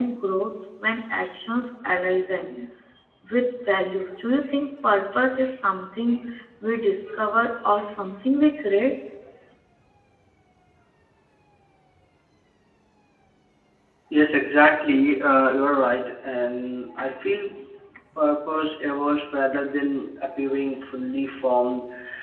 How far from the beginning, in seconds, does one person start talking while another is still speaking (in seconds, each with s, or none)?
none